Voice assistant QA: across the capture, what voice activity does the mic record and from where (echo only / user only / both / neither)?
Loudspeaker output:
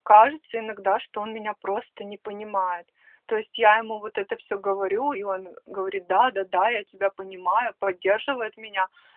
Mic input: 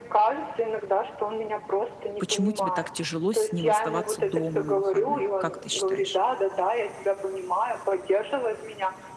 both